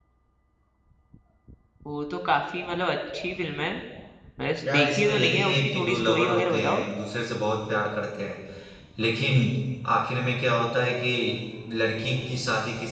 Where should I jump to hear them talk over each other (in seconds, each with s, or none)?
4.7 s